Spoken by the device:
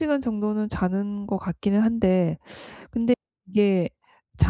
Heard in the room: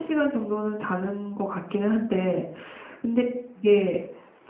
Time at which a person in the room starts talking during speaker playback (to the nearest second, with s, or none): none